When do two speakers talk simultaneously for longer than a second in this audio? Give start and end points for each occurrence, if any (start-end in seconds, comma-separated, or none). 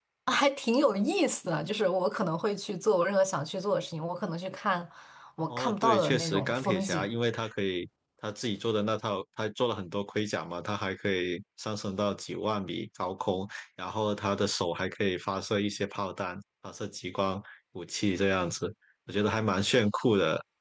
5.5-7.1